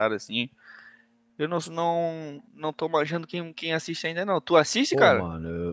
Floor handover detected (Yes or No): Yes